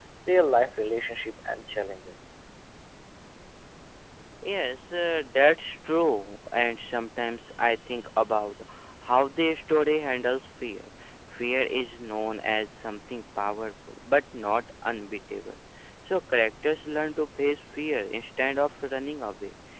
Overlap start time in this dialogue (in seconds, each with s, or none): none